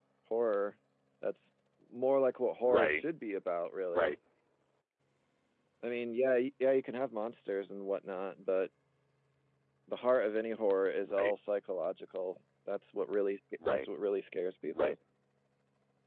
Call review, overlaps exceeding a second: none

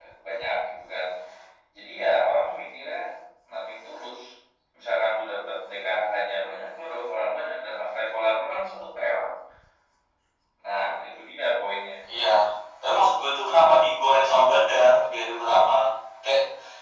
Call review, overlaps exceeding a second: none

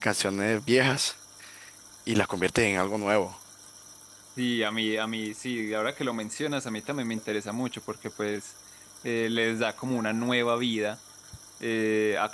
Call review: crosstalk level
none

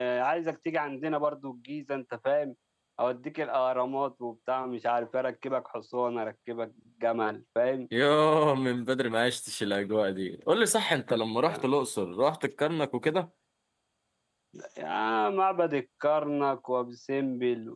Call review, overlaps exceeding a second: none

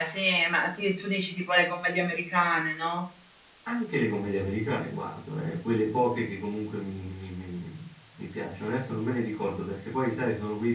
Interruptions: none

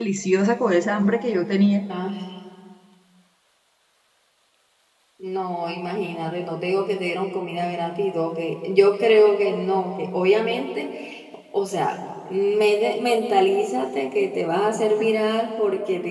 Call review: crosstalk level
none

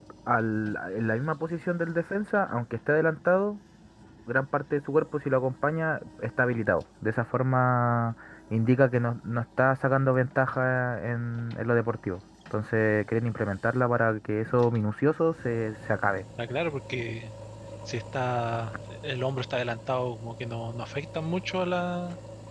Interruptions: none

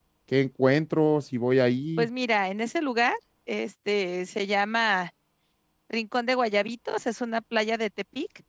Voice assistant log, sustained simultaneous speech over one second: none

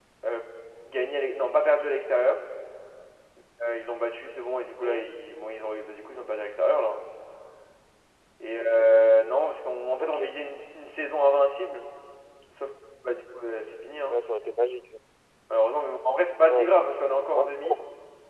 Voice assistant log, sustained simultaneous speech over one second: none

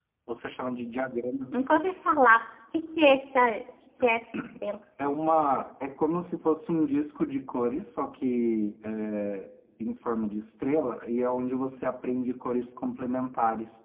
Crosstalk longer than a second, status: none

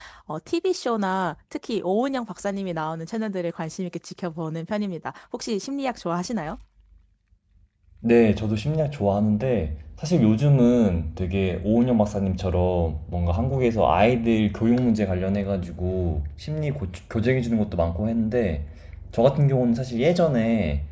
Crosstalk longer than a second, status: none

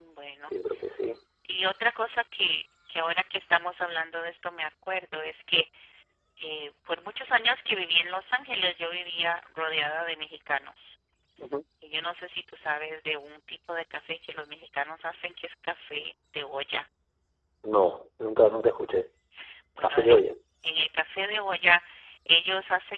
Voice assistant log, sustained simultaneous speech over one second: none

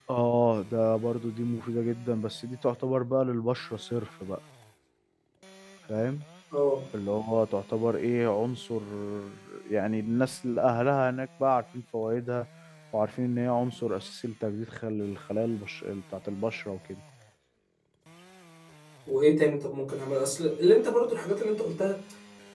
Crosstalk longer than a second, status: none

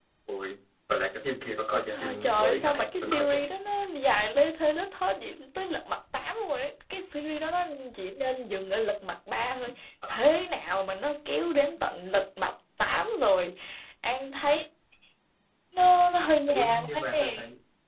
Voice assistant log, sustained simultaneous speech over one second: present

